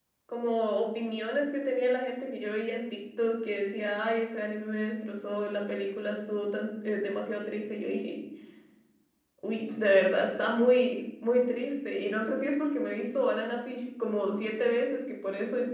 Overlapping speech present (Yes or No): No